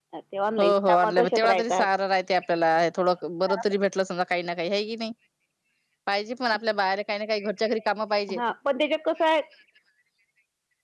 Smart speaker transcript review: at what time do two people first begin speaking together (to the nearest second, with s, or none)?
1 s